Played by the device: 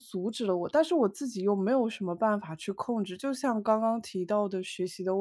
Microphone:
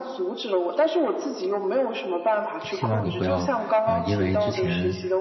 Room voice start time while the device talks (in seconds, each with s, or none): 2.7 s